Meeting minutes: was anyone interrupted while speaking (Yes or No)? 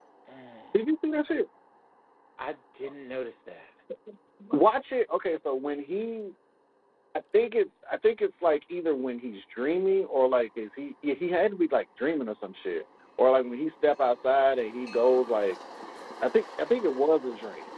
No